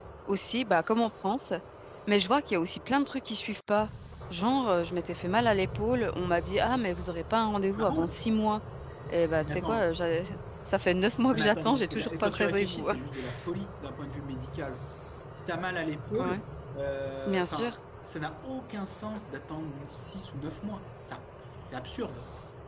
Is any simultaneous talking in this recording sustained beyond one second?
Yes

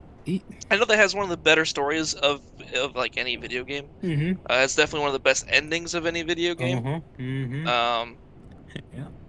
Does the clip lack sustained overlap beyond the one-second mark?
Yes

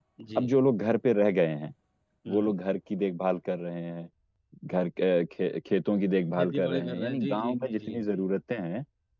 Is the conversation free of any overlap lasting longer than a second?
No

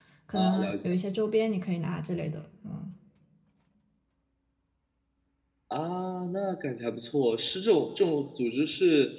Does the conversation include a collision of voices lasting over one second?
No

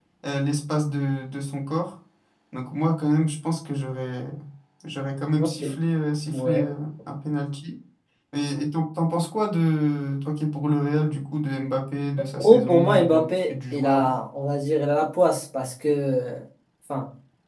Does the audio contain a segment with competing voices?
Yes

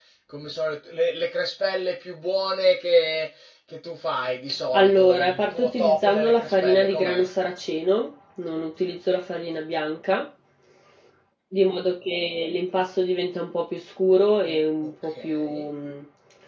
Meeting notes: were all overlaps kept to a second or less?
No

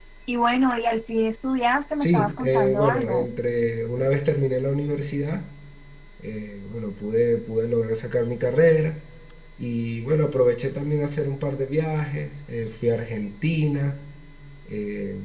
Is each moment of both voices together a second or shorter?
No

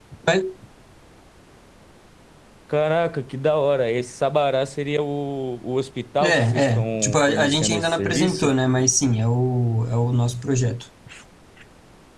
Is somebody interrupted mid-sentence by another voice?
Yes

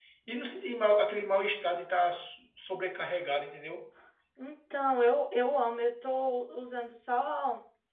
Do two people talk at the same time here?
No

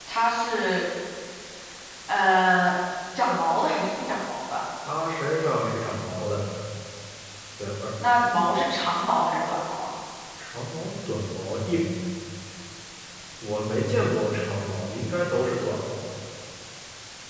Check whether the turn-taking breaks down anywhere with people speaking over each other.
No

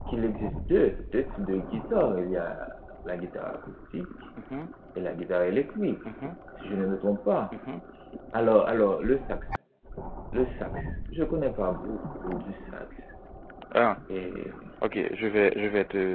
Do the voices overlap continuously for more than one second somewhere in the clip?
No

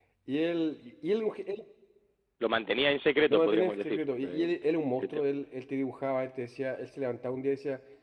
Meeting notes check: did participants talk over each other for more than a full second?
Yes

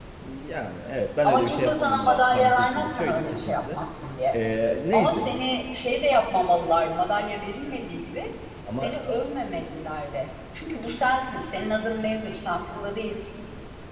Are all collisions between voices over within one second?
No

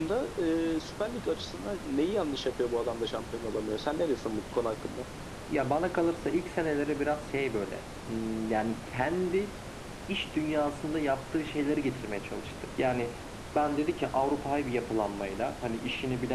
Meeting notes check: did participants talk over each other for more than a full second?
No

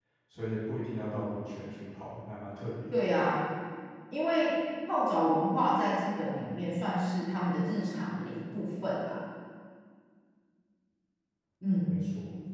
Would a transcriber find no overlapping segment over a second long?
Yes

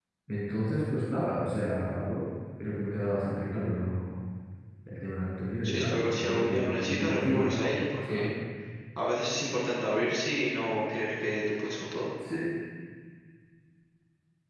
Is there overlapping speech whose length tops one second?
Yes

